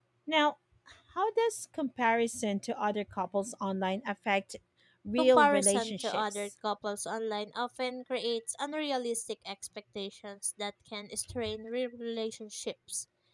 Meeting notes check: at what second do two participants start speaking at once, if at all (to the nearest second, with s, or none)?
5 s